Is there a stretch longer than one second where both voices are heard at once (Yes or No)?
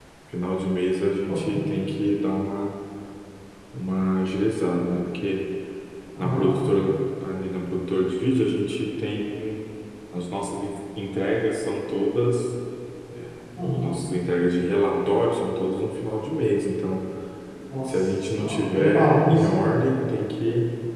Yes